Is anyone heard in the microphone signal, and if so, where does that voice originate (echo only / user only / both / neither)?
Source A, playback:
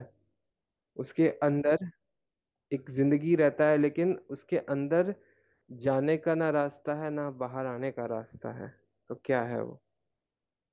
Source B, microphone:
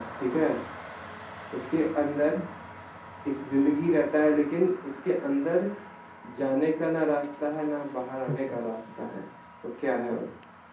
both